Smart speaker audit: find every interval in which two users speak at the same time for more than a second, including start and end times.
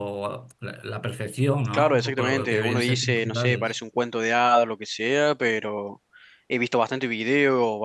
1.7-3.7

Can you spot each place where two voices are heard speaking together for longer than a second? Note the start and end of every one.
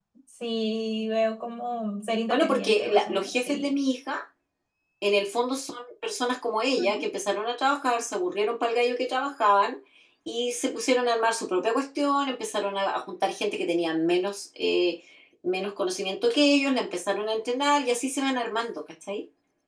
2.3-3.7

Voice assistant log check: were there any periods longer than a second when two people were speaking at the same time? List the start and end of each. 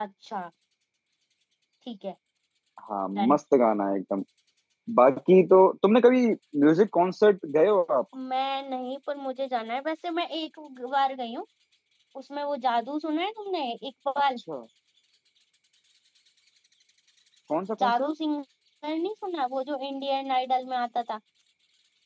none

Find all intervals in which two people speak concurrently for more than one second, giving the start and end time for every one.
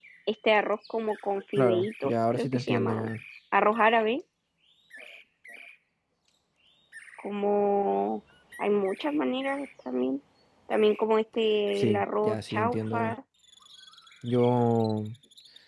1.6-3.1, 11.8-13.1

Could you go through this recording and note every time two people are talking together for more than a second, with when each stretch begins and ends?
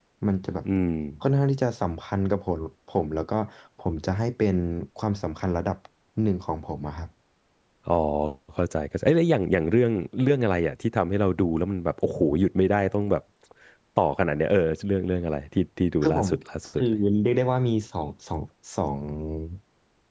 none

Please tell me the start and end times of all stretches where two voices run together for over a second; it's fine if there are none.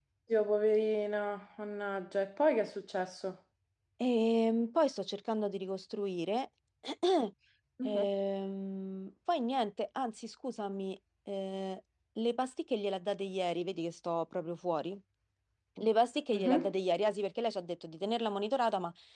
none

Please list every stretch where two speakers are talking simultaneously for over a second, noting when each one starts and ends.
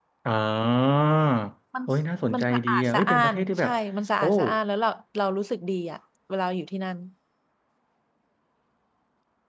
2.3-3.7

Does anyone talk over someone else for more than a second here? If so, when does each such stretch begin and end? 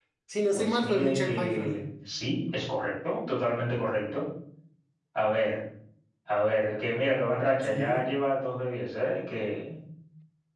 0.5-1.8

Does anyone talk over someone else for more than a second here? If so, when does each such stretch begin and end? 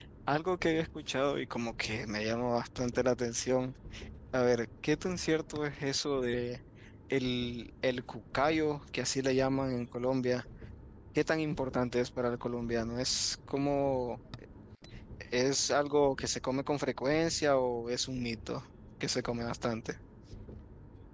none

